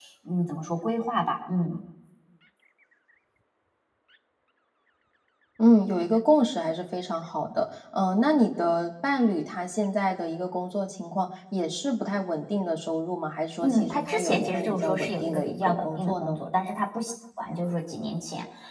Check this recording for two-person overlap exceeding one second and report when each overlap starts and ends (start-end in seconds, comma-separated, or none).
13.6-16.4